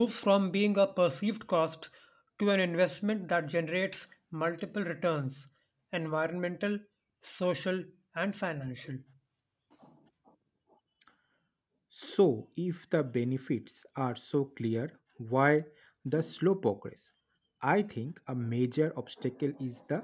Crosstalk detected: No

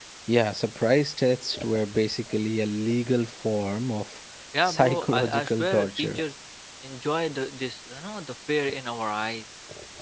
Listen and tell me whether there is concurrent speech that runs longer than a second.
Yes, from 4.6 s

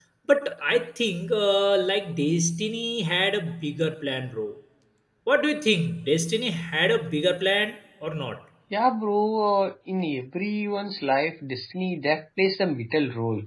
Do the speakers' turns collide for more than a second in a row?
No

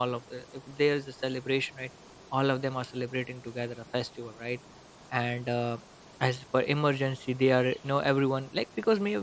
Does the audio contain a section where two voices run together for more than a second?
No

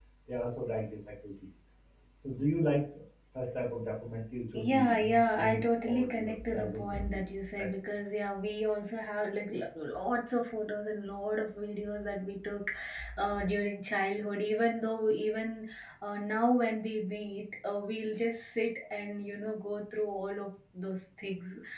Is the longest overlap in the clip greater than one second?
Yes, from 4.5 s

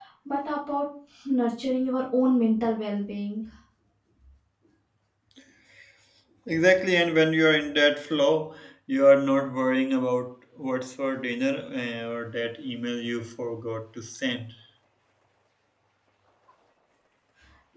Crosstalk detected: No

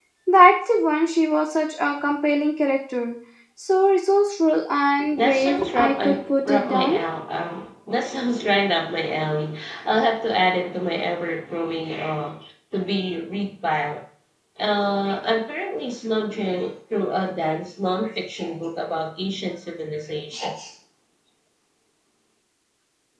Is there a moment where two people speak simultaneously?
Yes, from 5.2 s

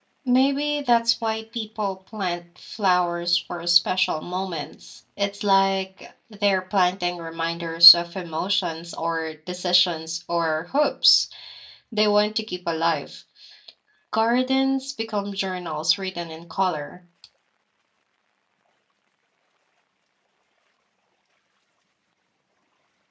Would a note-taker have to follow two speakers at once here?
No

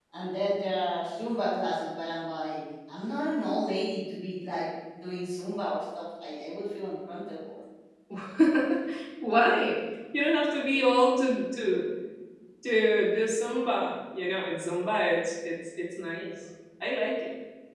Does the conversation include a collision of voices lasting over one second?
No

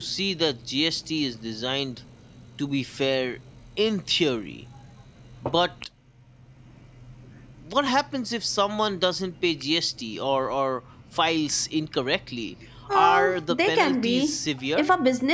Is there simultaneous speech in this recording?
Yes, from 12.9 s

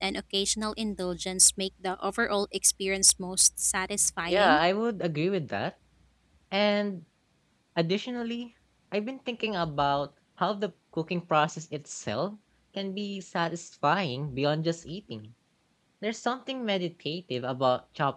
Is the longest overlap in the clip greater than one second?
No

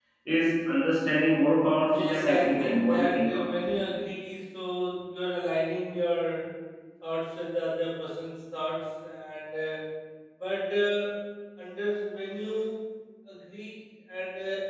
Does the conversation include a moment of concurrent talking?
Yes, from 1.8 s

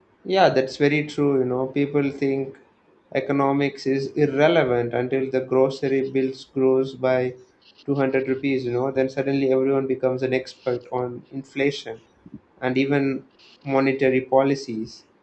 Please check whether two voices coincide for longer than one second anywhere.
No

